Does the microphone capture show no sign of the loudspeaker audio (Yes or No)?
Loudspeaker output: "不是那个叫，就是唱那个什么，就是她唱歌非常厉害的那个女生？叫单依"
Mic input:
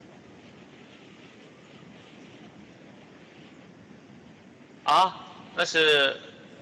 Yes